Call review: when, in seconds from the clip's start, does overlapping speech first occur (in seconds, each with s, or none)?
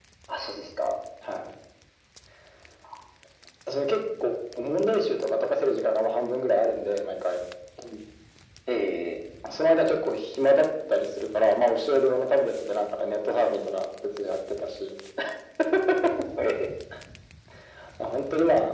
none